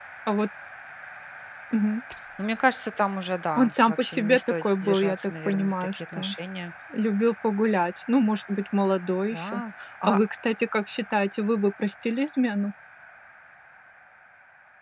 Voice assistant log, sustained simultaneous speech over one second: present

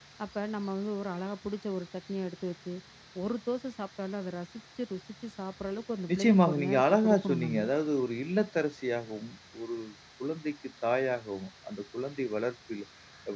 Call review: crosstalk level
present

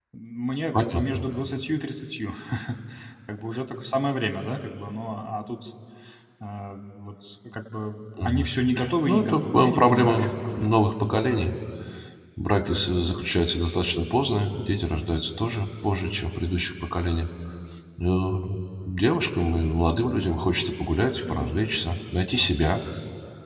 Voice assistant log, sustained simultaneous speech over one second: present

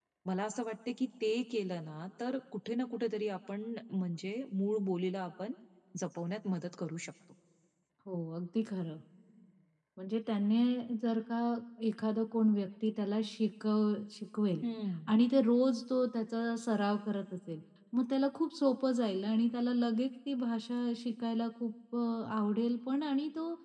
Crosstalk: none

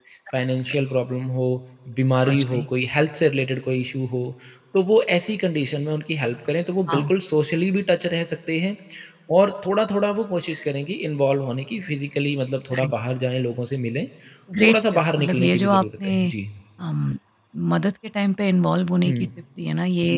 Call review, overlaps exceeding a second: present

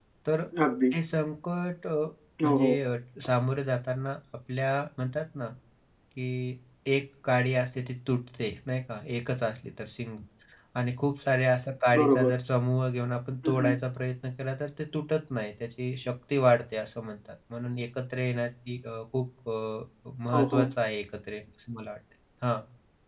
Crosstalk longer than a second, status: none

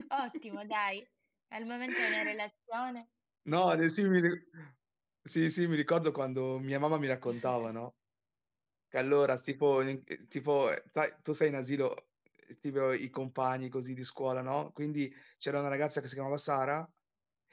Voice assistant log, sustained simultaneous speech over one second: none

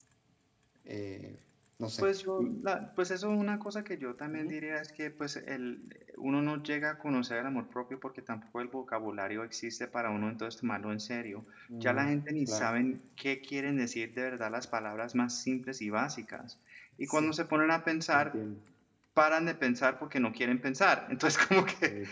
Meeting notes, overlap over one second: none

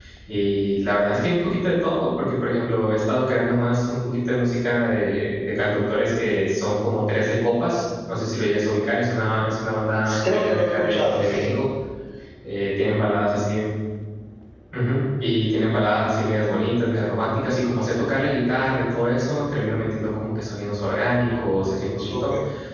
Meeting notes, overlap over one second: present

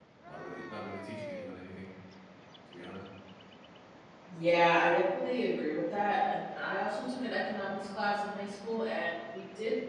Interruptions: none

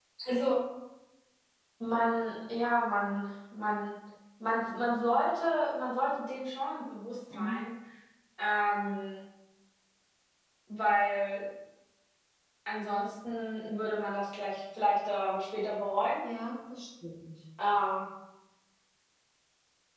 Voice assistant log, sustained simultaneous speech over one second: none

